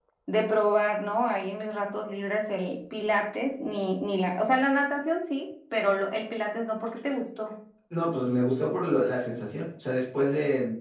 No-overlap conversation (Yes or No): Yes